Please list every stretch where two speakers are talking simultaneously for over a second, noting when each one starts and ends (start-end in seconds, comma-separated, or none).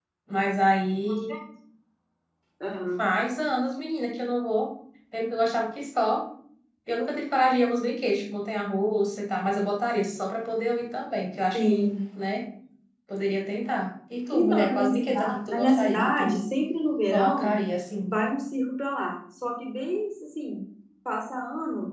14.3-16.4